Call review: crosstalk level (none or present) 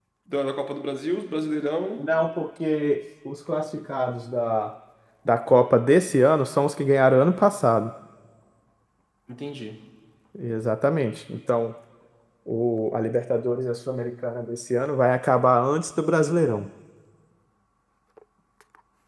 none